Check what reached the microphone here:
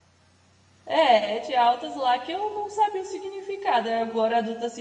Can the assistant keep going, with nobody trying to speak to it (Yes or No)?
No